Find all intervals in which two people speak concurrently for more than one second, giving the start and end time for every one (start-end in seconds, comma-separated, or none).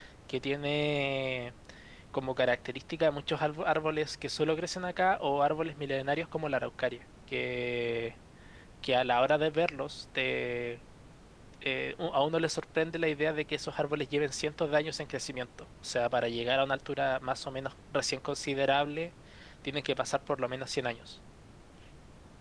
none